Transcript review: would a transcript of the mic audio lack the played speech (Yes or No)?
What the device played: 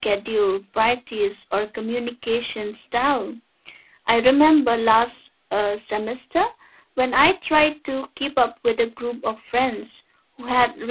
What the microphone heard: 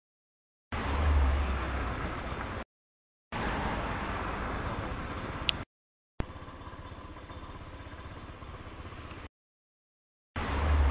Yes